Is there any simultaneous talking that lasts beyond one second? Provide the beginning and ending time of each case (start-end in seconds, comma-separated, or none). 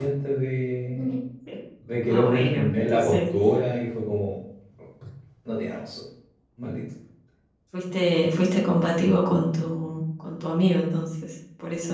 2.1-3.4